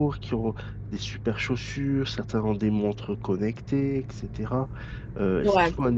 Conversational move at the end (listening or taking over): listening